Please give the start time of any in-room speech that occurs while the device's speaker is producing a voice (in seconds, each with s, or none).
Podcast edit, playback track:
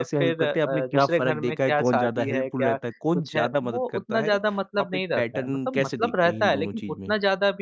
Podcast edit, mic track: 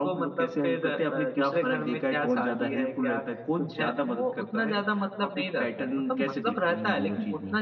none